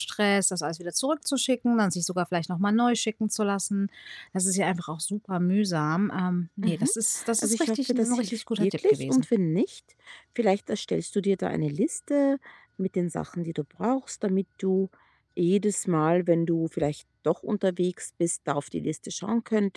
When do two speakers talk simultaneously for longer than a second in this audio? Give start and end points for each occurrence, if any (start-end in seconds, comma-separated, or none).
7.4-9.2